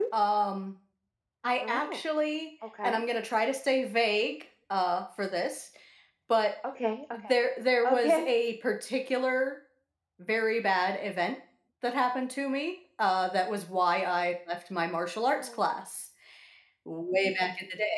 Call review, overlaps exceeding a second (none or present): none